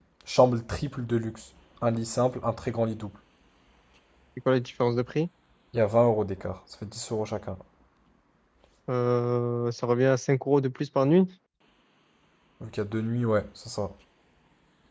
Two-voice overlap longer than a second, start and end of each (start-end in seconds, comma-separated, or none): none